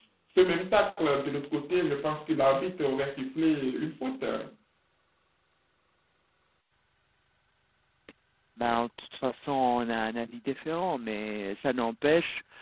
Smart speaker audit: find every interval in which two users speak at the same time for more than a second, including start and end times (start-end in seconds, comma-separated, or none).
none